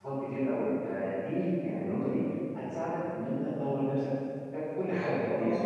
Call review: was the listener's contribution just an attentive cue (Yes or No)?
No